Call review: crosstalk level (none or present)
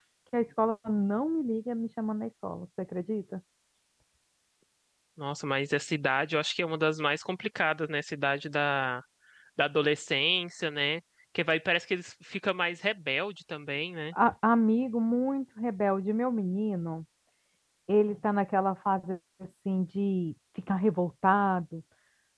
none